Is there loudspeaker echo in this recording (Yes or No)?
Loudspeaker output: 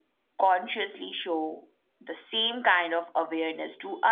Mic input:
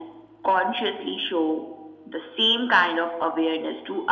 Yes